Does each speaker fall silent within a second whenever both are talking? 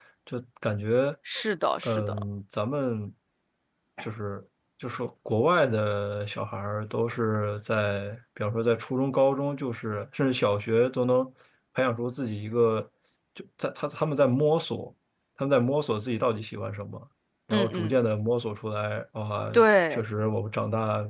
Yes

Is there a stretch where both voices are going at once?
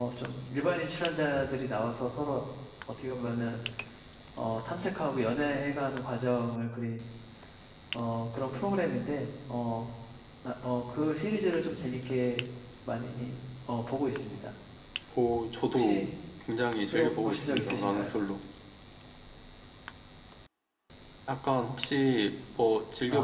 Yes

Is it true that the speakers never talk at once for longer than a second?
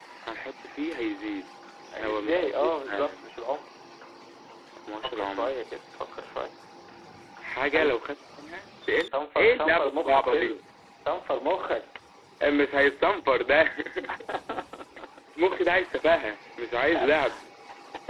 No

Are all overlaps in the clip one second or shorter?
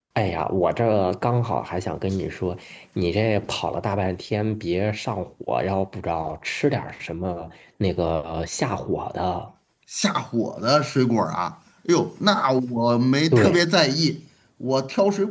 Yes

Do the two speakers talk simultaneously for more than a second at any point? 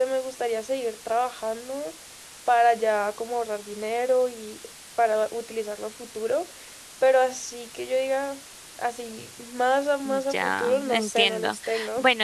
Yes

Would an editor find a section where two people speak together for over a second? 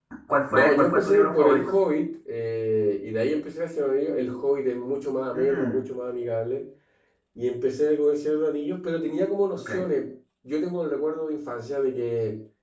Yes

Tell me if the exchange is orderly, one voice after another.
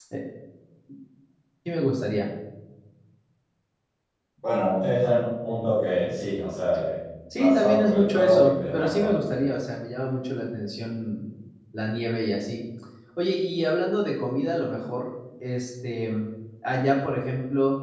No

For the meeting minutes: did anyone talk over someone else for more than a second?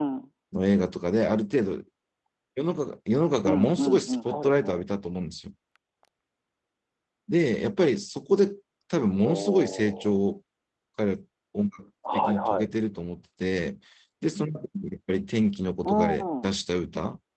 Yes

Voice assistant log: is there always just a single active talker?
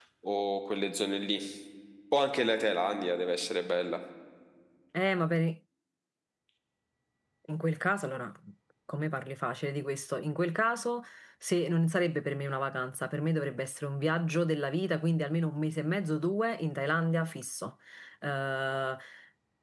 Yes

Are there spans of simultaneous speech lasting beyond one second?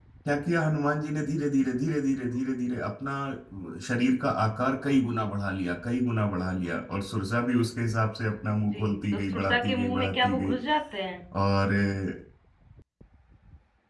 Yes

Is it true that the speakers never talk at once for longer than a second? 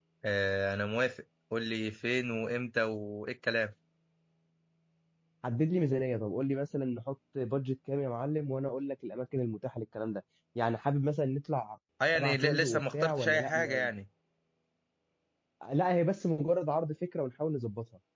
No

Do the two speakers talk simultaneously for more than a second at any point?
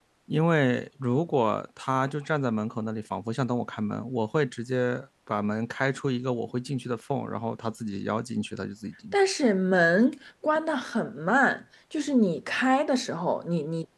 No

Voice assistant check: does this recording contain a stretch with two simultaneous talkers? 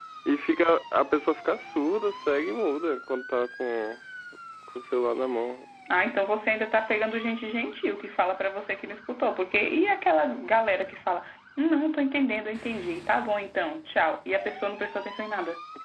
No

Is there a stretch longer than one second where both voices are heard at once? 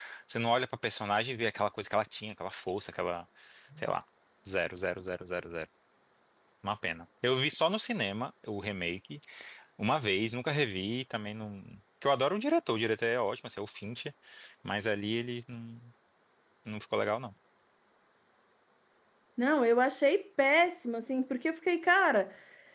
No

